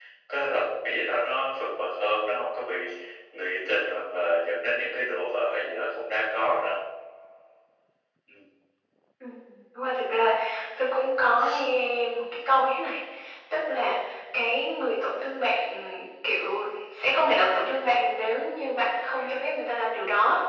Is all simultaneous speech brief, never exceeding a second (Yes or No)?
Yes